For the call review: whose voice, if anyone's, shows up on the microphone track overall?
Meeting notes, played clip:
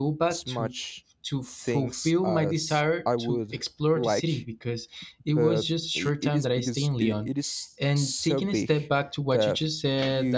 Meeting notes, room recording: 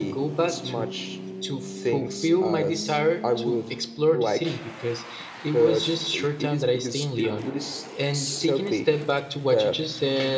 echo only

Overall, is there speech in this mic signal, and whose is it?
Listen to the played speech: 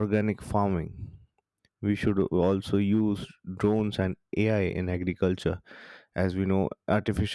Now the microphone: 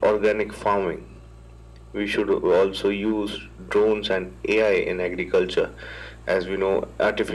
echo only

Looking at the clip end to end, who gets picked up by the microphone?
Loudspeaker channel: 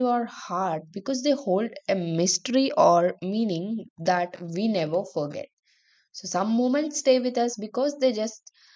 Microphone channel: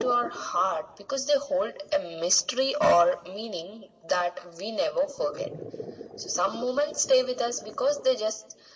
echo only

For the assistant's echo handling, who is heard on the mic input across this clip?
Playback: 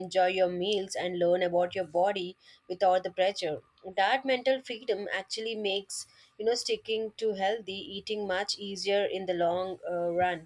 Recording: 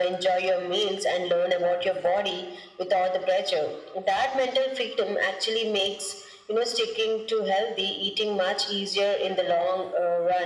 echo only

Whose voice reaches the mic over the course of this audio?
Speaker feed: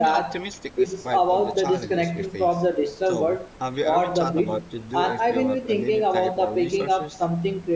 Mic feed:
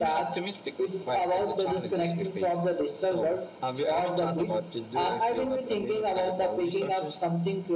echo only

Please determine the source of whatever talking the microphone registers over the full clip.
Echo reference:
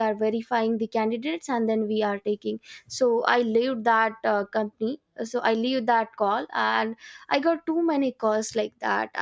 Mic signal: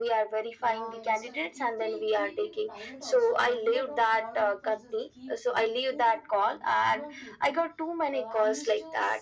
both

